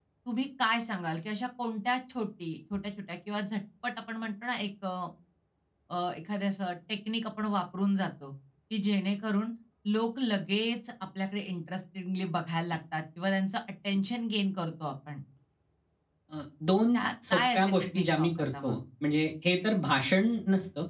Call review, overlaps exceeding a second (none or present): present